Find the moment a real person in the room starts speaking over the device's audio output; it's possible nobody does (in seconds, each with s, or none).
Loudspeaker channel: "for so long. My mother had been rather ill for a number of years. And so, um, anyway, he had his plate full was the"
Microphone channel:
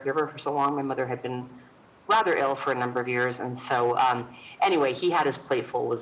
none